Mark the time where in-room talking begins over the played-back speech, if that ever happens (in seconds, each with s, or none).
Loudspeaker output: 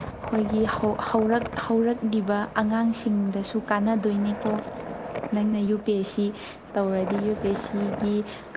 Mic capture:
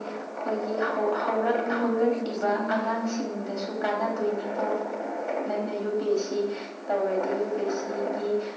1.6 s